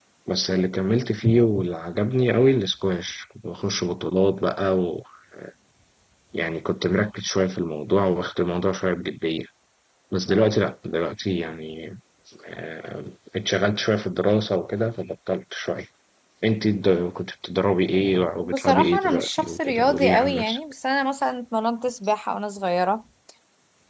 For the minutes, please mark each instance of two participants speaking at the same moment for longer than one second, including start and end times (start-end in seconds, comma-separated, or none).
18.4-20.6